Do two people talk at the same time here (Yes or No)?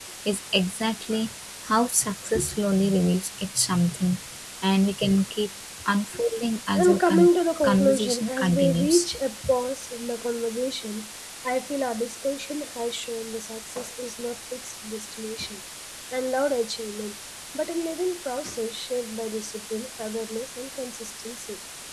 Yes